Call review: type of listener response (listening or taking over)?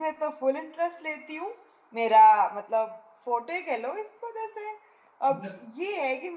listening